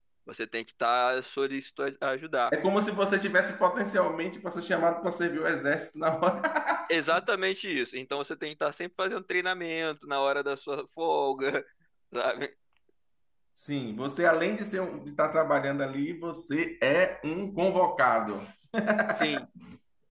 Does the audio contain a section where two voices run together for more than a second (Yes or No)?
No